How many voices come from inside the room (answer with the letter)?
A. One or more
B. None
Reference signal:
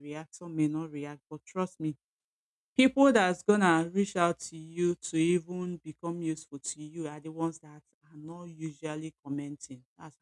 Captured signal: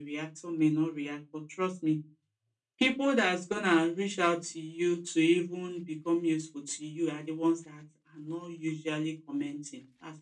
B